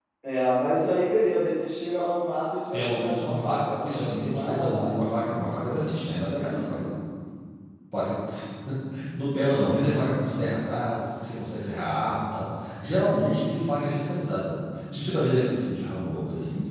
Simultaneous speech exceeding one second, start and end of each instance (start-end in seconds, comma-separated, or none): 2.7-4.9